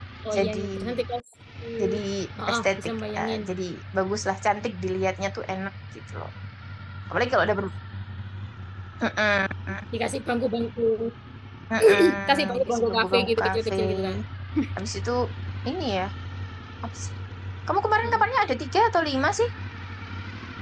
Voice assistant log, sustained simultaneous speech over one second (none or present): present